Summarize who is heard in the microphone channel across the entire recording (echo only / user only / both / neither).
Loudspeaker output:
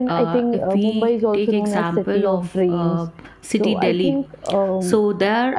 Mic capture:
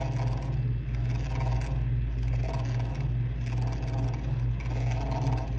neither